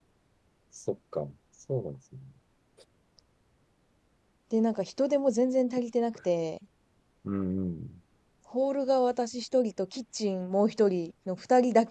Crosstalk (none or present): none